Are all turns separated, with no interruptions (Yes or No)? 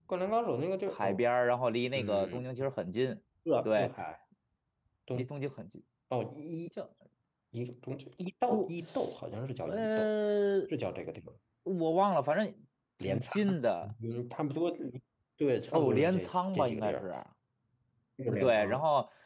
No